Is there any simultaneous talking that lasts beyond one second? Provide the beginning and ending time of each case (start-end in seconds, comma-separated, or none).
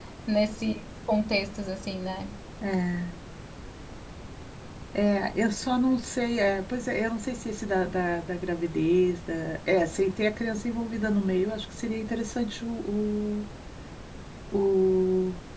none